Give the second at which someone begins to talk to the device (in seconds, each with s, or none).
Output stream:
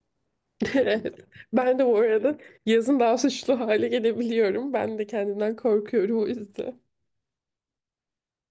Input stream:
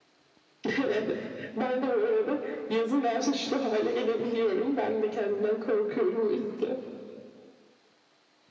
none